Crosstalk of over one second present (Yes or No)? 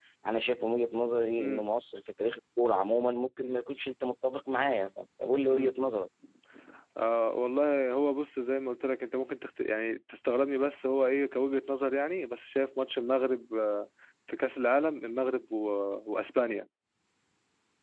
No